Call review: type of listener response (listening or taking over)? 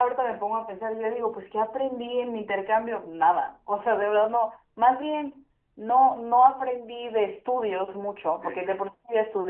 listening